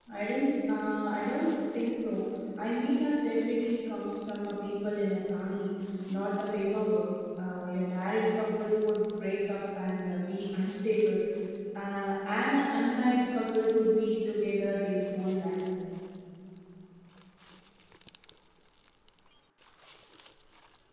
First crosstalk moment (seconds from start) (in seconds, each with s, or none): none